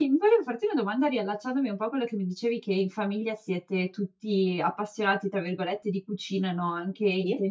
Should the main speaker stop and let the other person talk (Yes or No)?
No